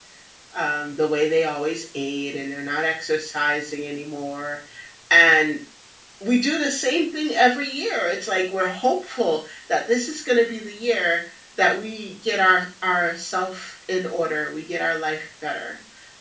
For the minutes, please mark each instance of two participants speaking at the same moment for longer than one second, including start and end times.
none

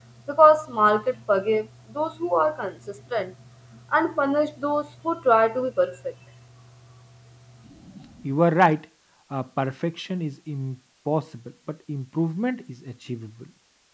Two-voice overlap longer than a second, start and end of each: none

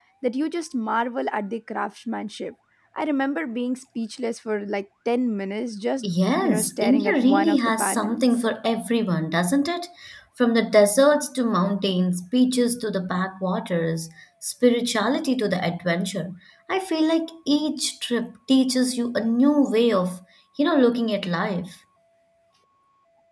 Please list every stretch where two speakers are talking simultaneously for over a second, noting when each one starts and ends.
6.1-8.4

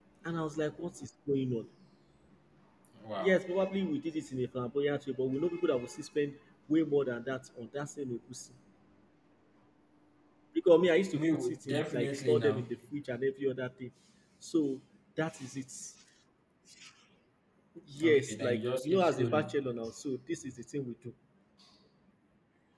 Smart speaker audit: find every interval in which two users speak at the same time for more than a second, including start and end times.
11.1-12.8, 18.0-19.6

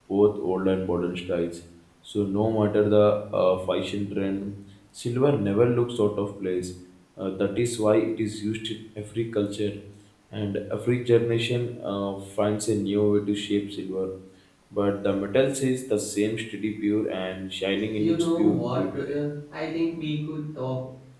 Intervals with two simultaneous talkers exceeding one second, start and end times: 17.9-19.2

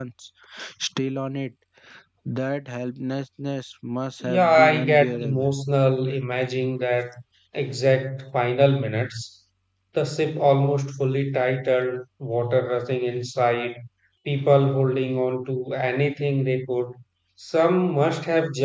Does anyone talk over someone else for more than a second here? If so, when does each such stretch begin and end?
4.2-5.5

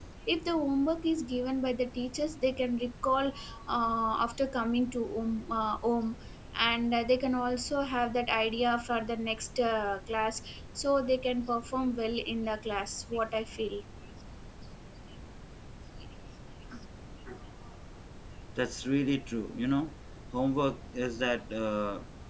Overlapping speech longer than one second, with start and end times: none

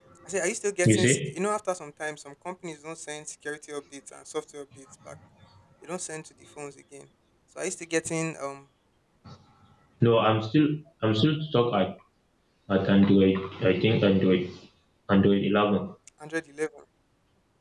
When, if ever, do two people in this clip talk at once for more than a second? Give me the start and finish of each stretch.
none

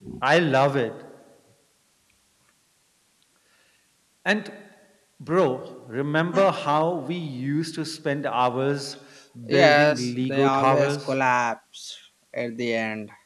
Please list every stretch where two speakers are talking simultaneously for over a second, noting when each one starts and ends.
9.5-11.2

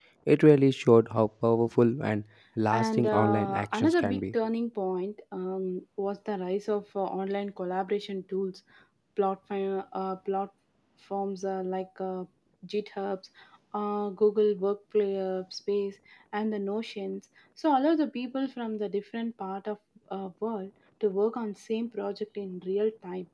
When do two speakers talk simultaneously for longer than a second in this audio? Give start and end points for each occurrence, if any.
2.7-4.3

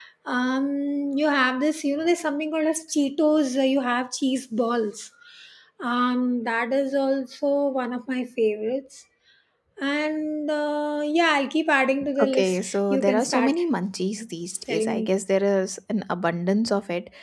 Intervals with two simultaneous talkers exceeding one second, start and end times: 12.2-13.6

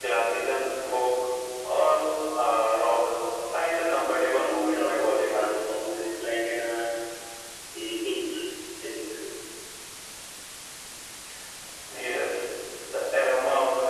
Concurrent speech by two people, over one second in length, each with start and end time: 4.3-5.7

